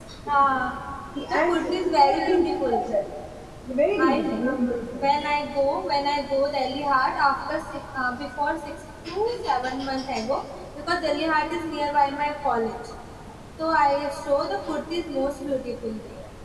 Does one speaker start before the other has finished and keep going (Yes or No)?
Yes